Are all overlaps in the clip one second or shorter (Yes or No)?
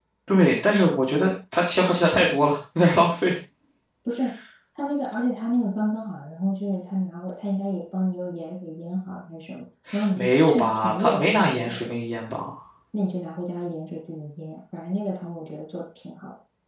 No